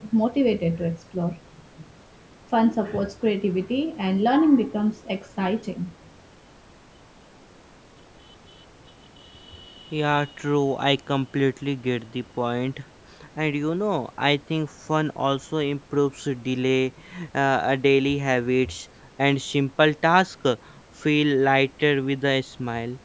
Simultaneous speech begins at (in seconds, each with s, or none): none